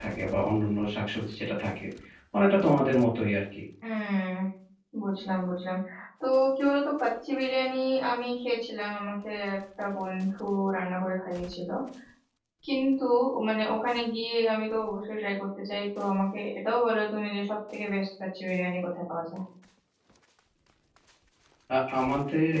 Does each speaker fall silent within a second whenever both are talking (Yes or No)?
Yes